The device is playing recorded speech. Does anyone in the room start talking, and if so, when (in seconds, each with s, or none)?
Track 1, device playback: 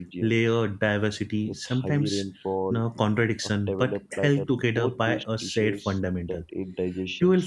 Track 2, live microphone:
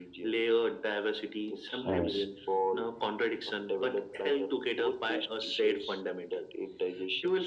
1.9 s